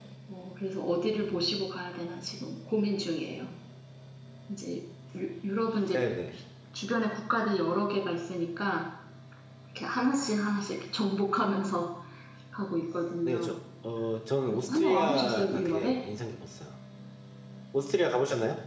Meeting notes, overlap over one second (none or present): present